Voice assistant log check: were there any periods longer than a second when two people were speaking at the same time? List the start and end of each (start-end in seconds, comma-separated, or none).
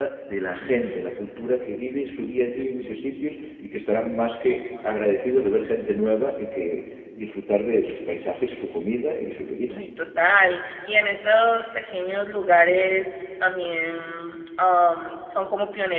none